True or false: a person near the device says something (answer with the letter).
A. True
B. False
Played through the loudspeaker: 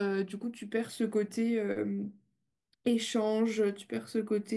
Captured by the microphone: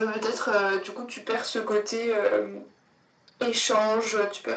B